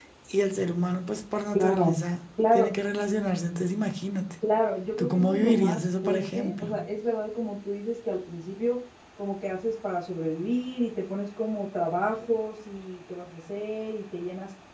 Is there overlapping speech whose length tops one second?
Yes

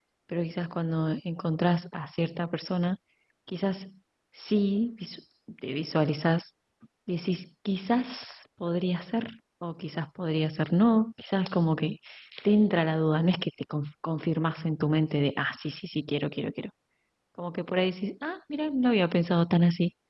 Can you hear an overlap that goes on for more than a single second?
No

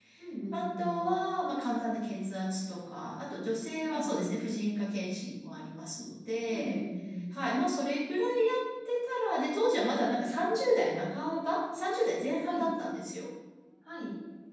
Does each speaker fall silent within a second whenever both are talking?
Yes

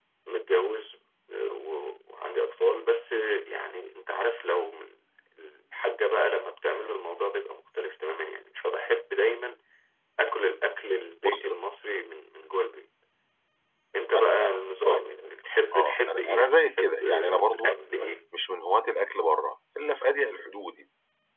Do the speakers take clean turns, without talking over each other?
No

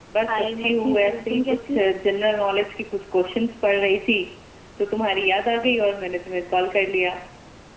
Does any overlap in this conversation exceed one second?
Yes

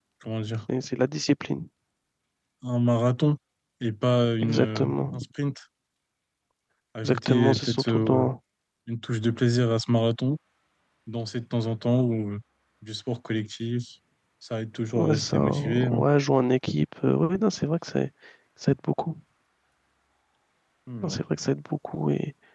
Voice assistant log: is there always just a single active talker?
No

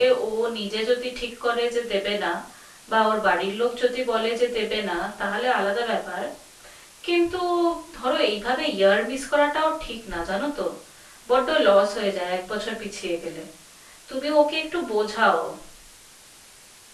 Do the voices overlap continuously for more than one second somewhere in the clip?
No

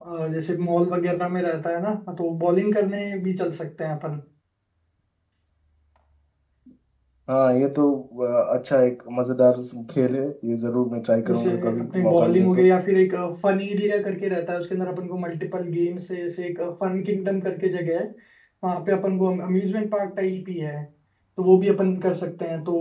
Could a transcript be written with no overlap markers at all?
No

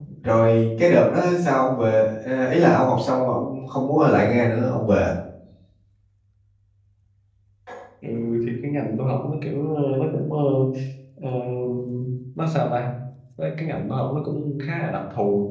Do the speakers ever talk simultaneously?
No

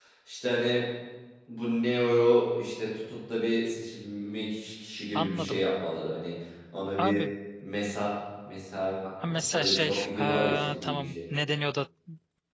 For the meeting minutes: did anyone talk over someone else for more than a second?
Yes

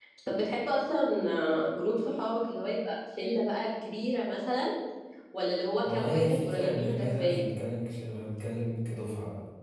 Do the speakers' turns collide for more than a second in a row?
Yes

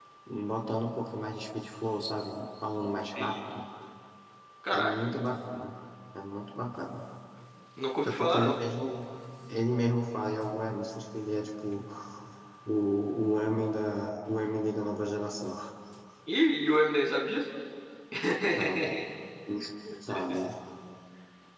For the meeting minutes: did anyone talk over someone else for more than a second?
No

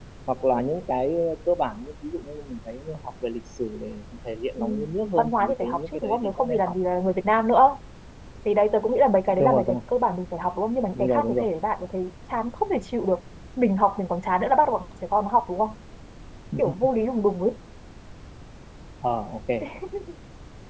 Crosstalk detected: Yes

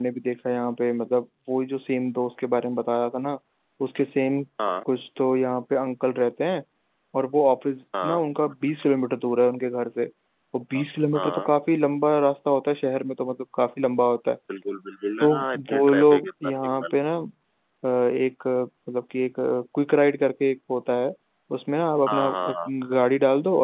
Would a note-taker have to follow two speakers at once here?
Yes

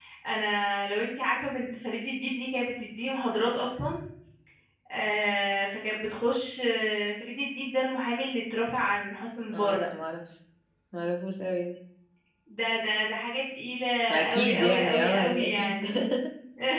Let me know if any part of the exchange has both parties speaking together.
Yes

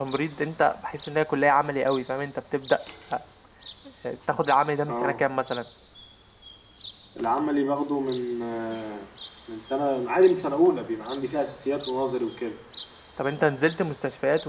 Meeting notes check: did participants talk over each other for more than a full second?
No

